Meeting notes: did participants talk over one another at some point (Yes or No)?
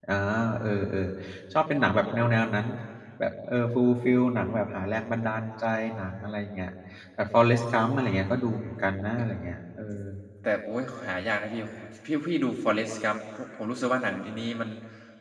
No